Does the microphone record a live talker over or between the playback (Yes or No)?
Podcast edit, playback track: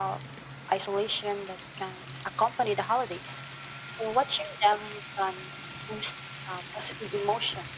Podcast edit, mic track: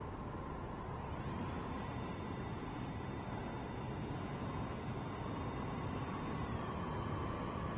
No